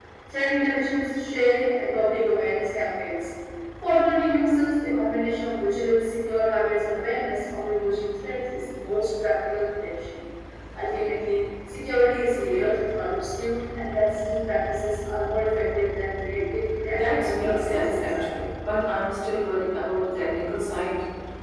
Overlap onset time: 16.9 s

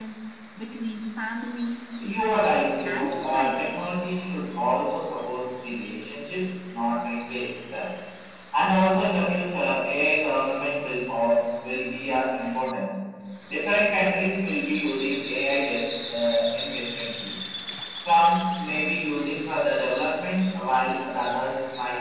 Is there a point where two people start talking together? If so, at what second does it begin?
2.0 s

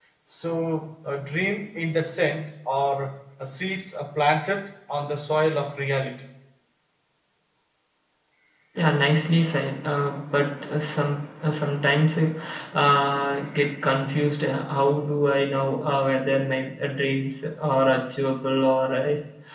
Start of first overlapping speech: none

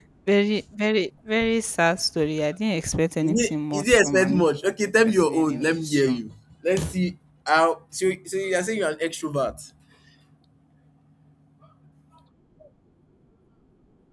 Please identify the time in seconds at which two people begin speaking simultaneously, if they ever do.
3.2 s

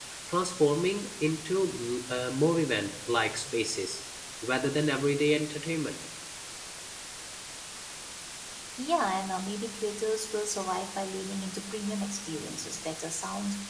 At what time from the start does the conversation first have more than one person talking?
none

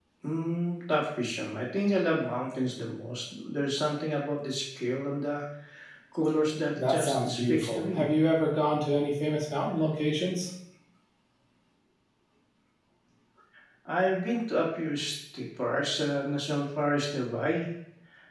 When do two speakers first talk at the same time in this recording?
6.8 s

